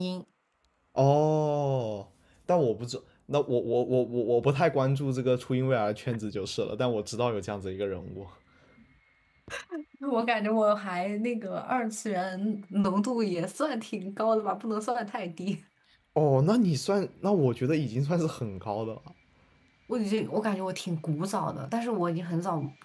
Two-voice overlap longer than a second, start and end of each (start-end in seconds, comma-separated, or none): none